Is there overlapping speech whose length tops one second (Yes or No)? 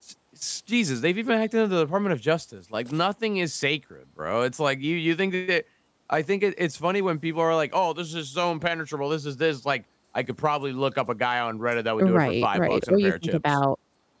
Yes